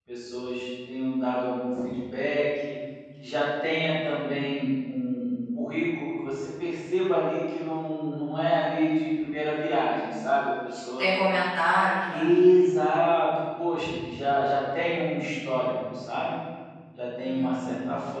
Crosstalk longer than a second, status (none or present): none